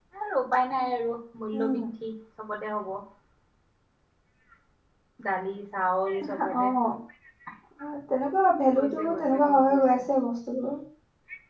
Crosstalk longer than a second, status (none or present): present